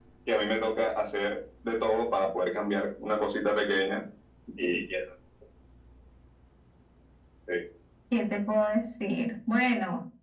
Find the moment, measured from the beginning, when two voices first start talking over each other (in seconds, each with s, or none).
none